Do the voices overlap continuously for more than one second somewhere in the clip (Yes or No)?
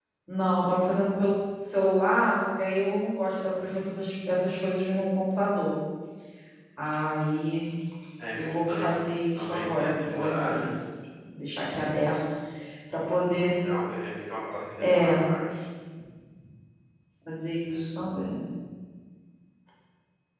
Yes